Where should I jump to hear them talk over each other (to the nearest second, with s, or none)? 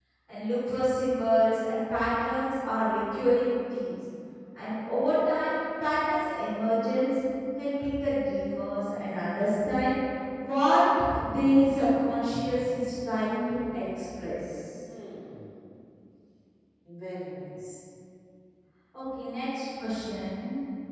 none